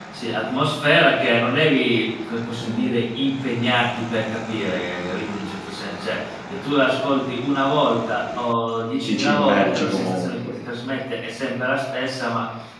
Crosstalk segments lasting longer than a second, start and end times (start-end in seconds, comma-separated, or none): 9.0-10.5